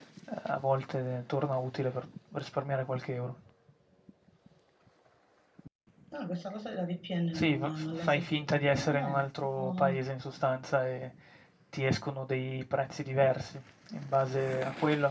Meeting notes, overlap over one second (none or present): present